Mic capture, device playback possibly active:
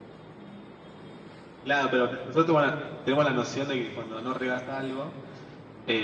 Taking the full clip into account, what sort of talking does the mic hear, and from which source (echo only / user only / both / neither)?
user only